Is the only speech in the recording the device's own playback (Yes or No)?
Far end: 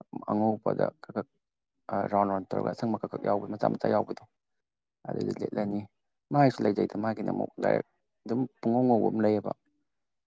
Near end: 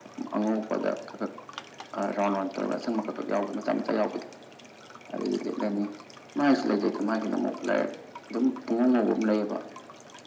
Yes